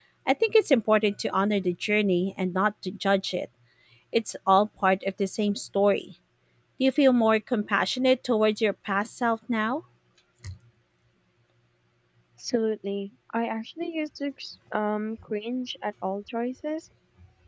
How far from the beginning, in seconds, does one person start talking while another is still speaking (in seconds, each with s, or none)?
none